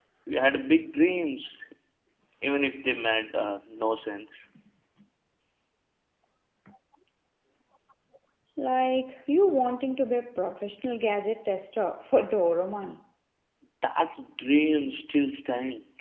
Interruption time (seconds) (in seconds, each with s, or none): none